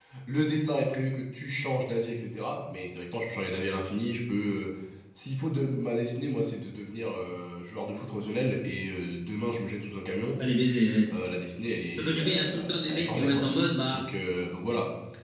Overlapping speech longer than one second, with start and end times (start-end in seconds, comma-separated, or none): 12.0-13.4